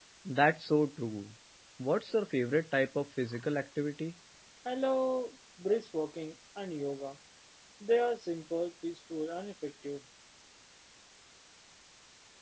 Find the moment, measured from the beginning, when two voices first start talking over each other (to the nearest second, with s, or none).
none